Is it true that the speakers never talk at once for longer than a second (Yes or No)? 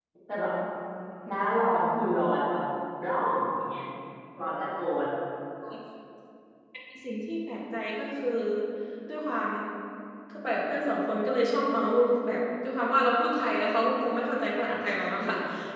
Yes